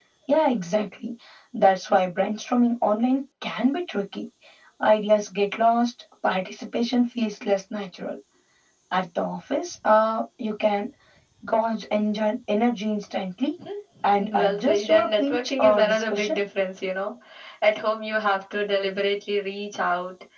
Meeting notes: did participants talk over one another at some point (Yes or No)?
Yes